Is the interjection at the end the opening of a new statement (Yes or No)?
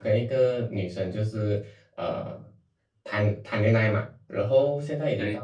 No